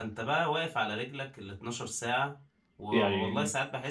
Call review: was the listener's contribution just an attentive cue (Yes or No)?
Yes